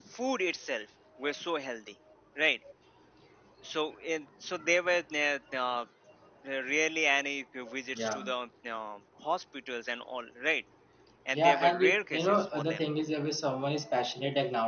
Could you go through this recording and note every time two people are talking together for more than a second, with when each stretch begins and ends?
11.3-12.8

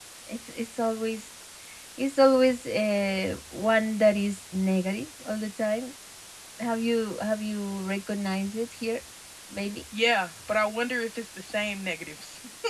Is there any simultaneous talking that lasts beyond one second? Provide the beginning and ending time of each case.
none

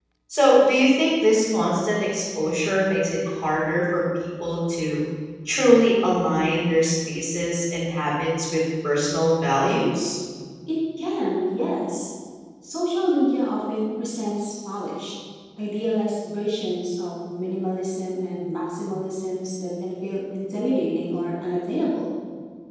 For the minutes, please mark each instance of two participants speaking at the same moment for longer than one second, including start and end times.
none

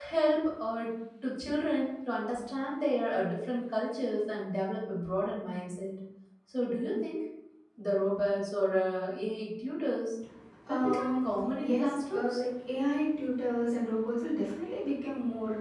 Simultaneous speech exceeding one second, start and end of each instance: 10.7-12.4

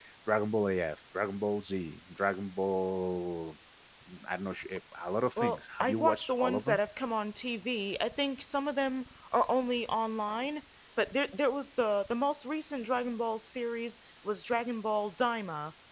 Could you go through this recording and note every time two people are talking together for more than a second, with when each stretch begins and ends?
5.4-6.8

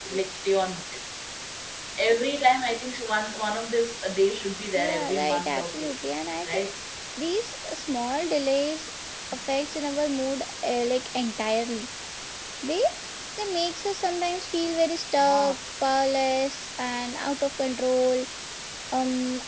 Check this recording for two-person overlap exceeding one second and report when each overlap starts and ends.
4.8-6.0

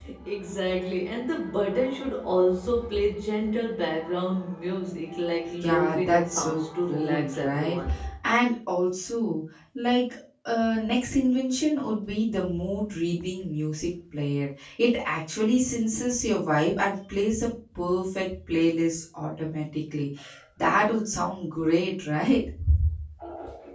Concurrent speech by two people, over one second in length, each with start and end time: 5.6-7.8

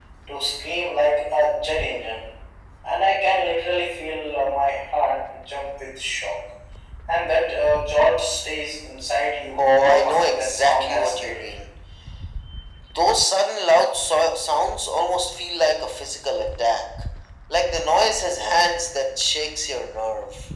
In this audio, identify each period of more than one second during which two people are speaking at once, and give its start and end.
9.6-11.5

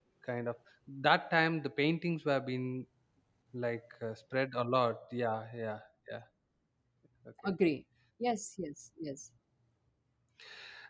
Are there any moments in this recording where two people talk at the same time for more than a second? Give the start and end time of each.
none

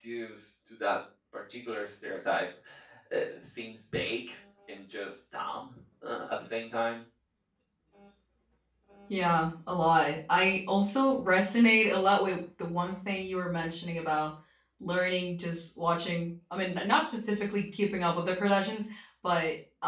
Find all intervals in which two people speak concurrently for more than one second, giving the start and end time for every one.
none

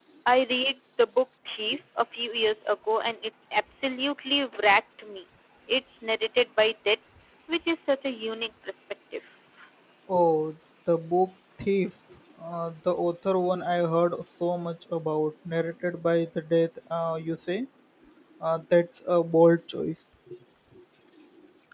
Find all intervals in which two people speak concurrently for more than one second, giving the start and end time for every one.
none

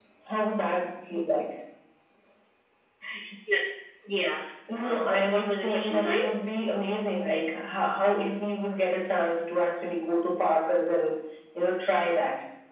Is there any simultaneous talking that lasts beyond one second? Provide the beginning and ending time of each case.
4.8-6.2

